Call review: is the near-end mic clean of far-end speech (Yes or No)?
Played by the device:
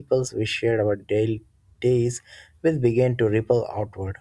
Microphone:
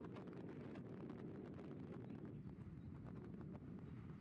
Yes